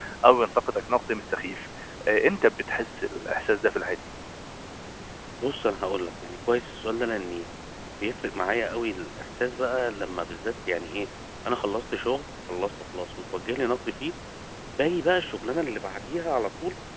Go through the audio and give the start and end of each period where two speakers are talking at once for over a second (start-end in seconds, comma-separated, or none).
none